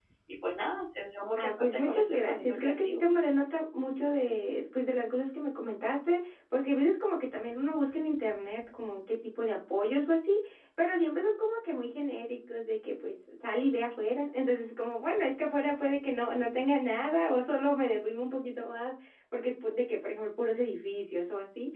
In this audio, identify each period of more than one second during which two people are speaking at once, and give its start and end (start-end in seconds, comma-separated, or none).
1.4-3.0